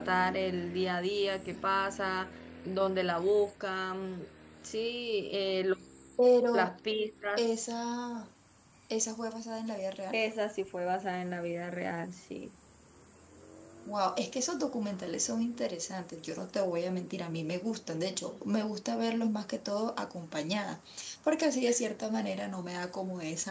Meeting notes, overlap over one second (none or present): none